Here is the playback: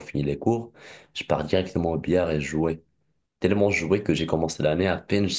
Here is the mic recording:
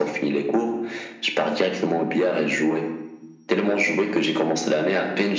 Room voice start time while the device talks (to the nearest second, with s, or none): none